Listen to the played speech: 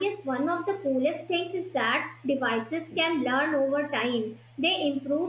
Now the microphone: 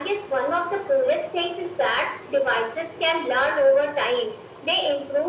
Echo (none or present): present